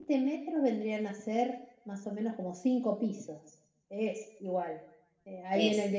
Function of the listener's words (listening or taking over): listening